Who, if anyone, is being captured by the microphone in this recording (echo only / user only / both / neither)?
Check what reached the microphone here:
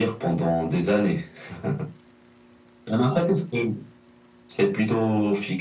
echo only